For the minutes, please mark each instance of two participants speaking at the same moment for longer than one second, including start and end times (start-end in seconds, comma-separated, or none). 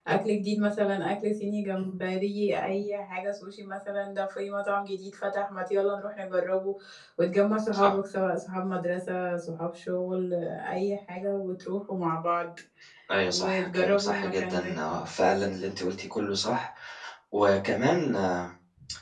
13.3-14.7